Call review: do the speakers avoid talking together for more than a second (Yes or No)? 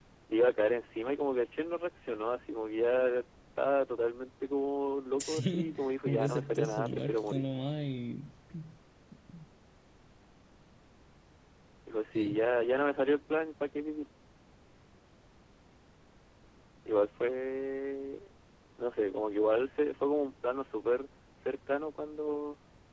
No